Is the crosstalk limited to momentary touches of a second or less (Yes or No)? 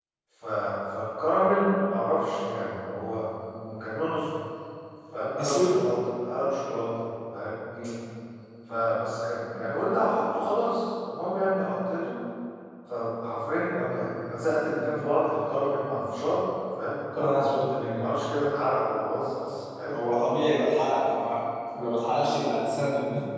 Yes